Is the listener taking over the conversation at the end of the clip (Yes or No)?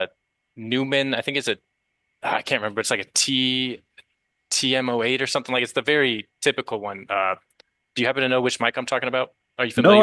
Yes